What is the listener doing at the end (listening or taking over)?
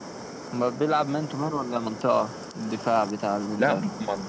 taking over